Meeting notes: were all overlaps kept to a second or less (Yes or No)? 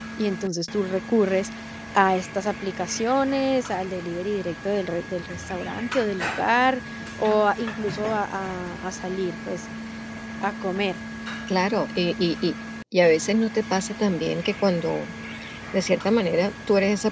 Yes